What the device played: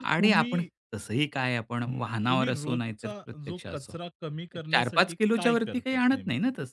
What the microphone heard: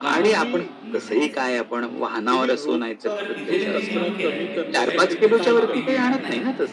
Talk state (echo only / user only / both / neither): both